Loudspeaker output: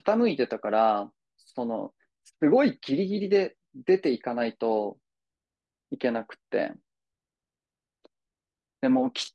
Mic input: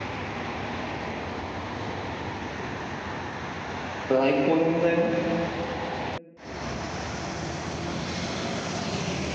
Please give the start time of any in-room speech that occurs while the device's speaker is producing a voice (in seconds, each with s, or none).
4.1 s